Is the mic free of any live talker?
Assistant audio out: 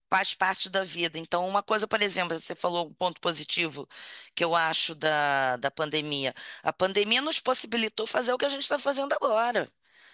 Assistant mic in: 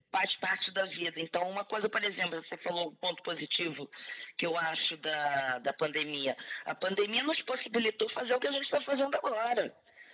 Yes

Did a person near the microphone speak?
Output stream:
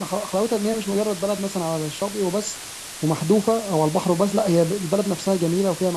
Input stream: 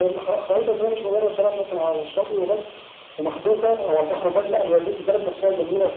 No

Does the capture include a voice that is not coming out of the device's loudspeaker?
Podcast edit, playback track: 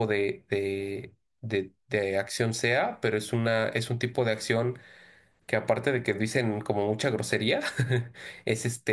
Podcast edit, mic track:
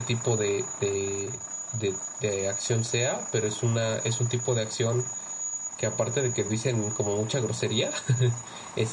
No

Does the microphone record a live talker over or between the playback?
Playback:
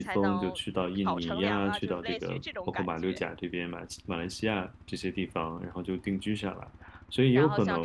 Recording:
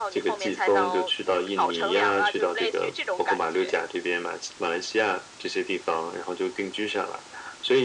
No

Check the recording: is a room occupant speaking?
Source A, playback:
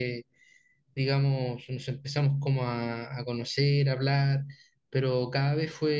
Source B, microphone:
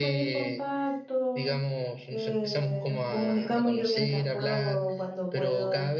Yes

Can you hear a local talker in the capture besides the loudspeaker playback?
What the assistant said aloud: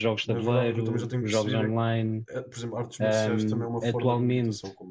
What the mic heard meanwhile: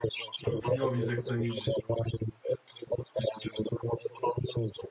Yes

